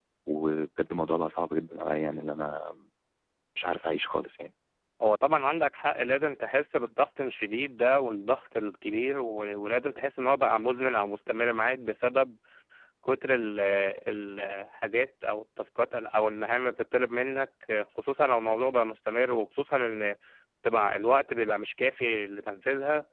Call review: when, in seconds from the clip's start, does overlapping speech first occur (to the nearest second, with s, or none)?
none